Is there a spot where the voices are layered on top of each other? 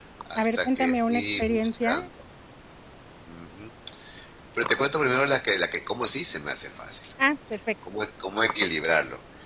Yes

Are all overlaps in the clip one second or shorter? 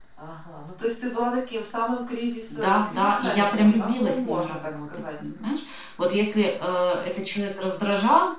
No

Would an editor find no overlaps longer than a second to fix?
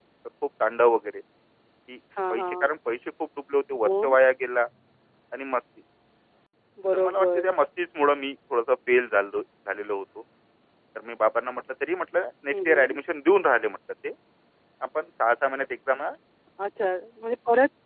Yes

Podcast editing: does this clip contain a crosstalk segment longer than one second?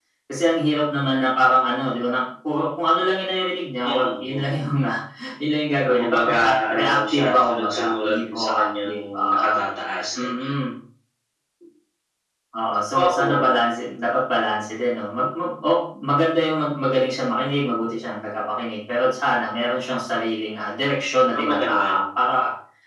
Yes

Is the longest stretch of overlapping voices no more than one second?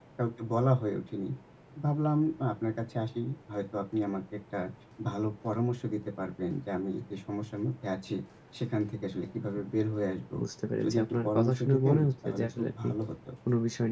No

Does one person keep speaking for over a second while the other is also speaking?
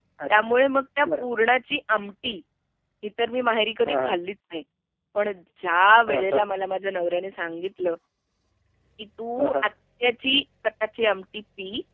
No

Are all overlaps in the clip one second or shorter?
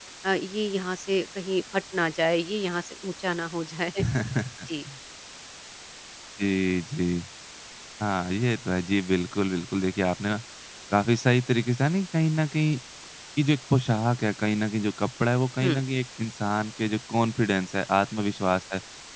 Yes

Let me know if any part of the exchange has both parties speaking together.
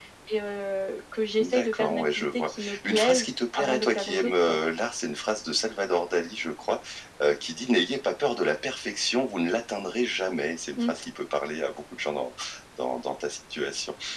Yes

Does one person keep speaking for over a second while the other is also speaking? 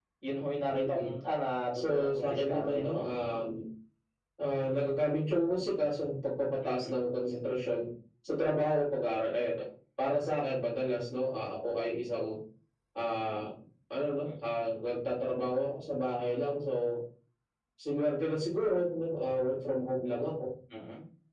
Yes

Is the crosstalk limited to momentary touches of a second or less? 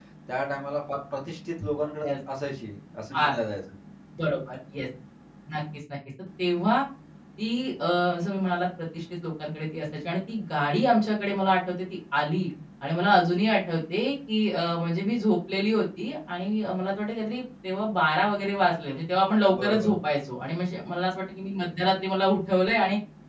Yes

